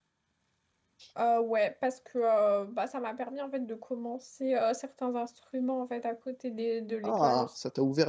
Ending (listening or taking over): taking over